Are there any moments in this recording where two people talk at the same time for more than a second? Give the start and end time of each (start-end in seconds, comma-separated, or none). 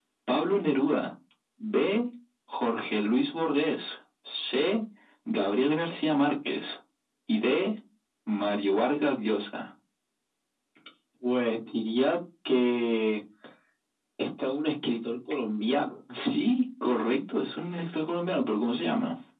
none